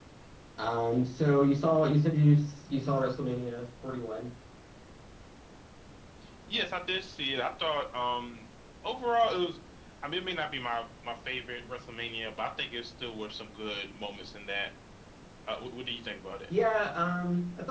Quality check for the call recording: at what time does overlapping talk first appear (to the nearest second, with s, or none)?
none